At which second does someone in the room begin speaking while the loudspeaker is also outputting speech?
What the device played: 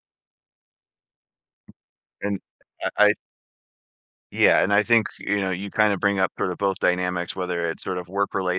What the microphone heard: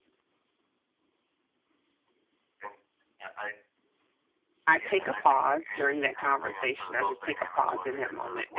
4.7 s

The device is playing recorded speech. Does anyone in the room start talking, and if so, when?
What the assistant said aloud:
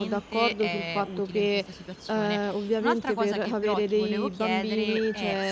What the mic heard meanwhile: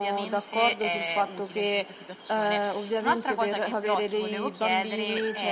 none

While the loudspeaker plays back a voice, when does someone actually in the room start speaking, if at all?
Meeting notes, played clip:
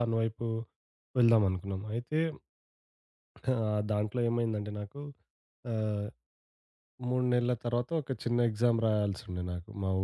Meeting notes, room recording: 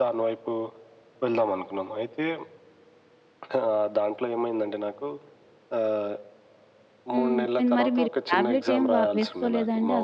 7.1 s

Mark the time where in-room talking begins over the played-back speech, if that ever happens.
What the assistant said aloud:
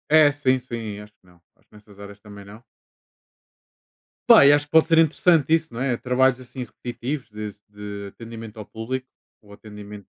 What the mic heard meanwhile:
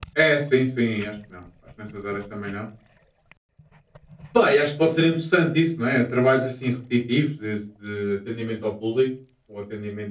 none

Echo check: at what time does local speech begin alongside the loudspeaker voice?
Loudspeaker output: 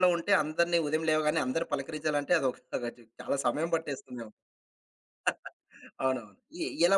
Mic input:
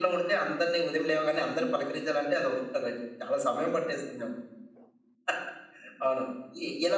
none

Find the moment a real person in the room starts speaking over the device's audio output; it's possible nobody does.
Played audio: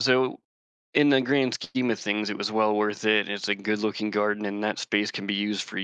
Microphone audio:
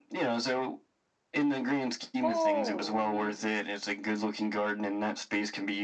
2.2 s

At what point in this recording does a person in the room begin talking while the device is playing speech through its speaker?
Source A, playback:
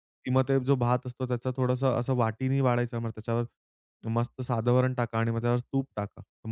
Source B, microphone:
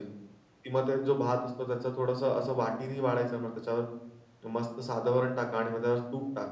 none

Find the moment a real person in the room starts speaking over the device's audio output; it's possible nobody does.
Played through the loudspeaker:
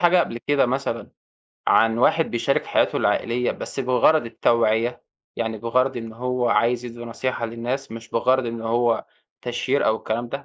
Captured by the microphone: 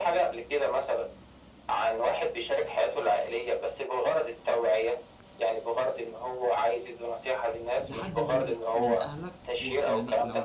7.9 s

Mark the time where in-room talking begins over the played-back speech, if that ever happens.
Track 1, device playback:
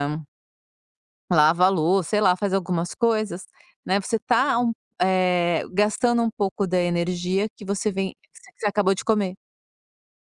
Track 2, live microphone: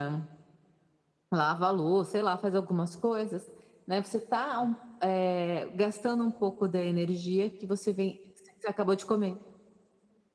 none

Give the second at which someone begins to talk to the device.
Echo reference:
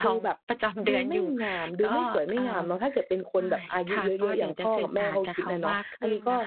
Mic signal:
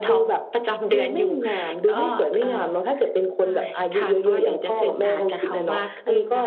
none

